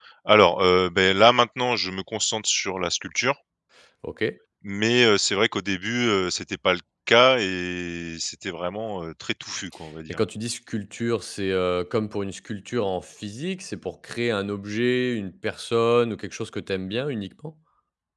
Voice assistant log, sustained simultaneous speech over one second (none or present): none